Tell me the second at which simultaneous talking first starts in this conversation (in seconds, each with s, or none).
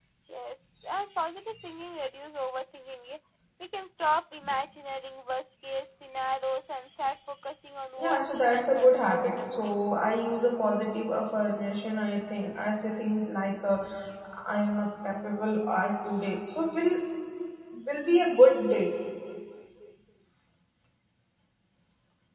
8.0 s